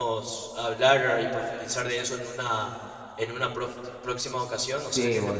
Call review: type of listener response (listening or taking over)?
taking over